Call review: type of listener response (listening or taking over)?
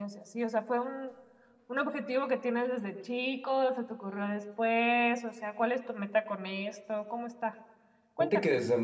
taking over